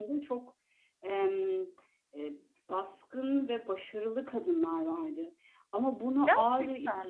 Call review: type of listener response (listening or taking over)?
listening